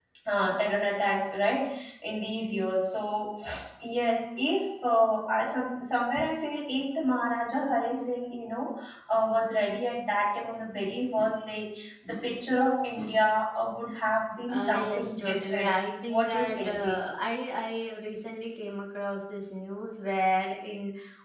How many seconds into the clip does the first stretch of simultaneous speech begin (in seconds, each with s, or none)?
14.5 s